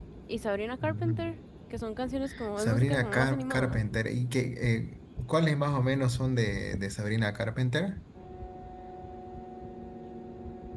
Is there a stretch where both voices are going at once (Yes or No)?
Yes